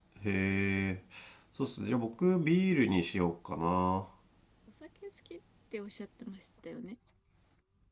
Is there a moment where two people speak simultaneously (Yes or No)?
No